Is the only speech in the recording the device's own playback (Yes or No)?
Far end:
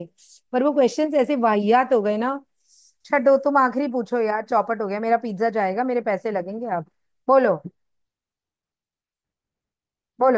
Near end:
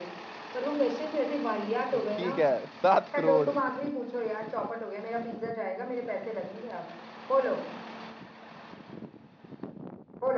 No